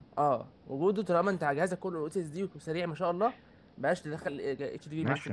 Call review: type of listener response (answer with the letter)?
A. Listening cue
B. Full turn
B